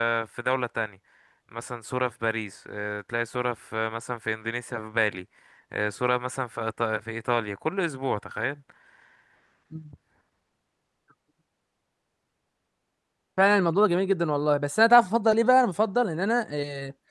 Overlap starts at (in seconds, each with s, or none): none